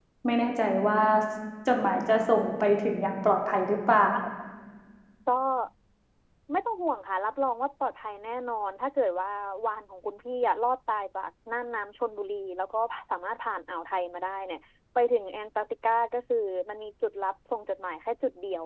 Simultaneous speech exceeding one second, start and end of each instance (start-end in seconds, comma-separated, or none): none